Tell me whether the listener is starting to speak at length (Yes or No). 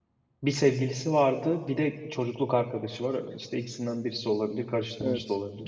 Yes